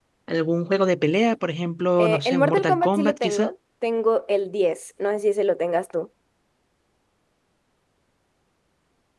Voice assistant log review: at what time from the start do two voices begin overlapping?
2.0 s

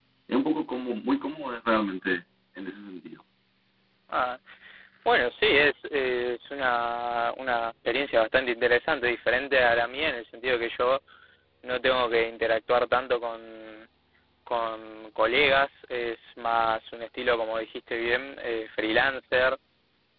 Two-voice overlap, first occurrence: none

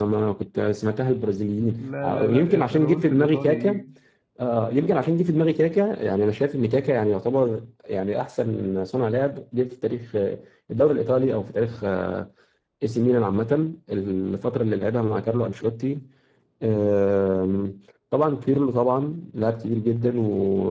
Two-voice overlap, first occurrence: 1.8 s

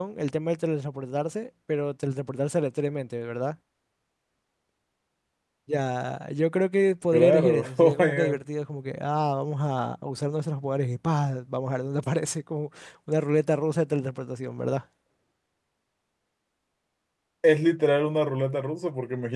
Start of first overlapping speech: 7.1 s

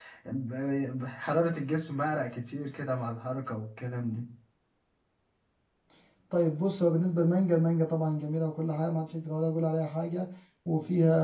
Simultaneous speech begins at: none

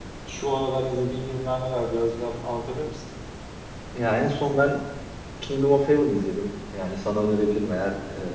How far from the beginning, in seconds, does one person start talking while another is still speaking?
none

